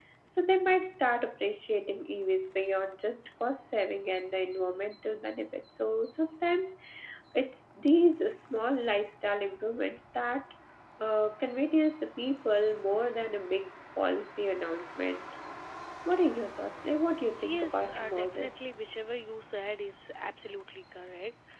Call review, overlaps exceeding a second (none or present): present